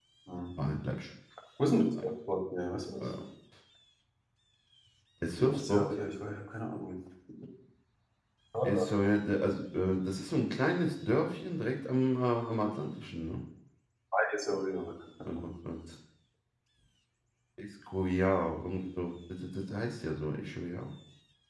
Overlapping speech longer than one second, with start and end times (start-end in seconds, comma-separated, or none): none